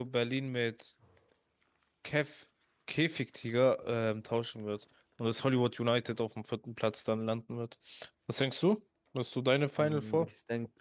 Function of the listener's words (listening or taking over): taking over